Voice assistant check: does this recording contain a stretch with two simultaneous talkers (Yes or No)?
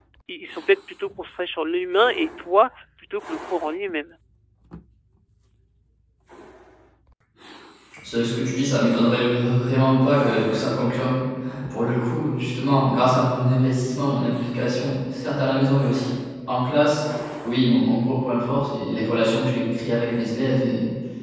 No